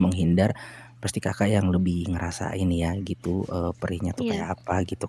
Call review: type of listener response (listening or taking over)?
listening